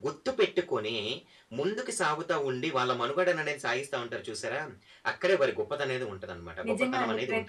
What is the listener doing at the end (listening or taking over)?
taking over